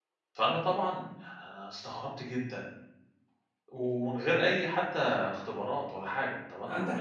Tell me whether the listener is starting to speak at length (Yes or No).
Yes